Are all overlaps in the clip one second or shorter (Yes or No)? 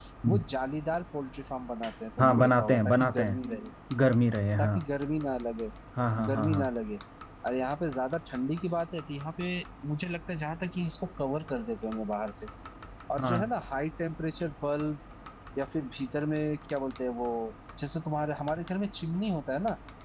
No